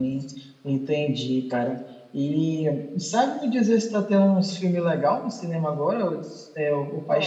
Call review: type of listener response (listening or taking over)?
taking over